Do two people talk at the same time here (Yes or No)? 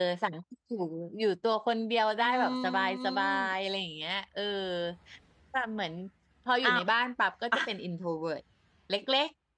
Yes